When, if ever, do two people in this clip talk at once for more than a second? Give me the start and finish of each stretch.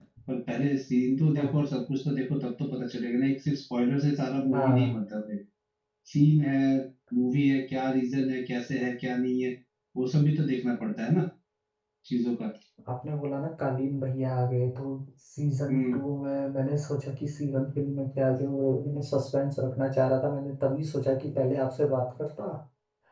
none

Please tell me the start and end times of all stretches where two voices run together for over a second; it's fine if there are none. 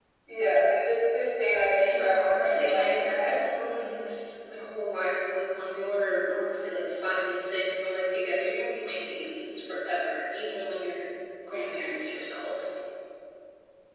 1.8-3.4

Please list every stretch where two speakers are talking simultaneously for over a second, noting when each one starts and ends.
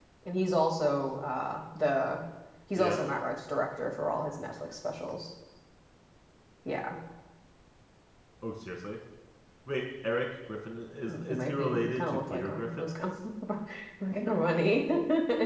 11.3-12.9

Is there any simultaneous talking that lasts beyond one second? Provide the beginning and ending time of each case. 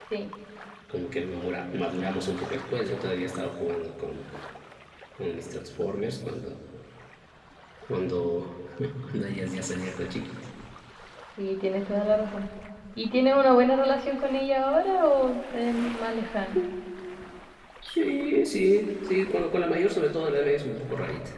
none

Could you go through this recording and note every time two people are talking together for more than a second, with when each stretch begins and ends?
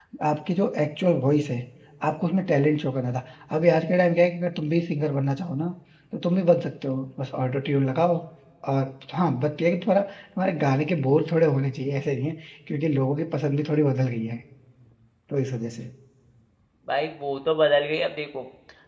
none

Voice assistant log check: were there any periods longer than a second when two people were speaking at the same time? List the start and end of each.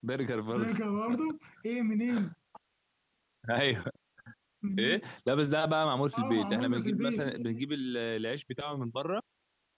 6.1-7.4

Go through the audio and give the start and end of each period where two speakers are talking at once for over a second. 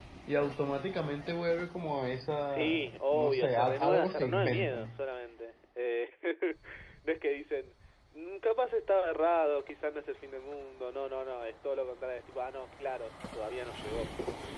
2.5-5.0

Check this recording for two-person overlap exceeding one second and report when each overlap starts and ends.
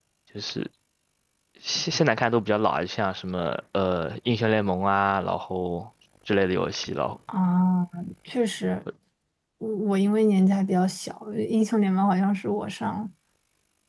none

